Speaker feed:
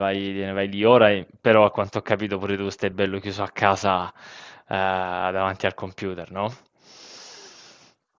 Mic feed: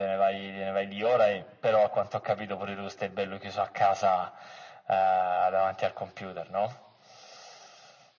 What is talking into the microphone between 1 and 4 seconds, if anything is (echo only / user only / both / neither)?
echo only